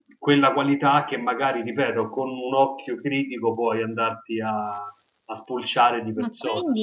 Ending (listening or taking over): taking over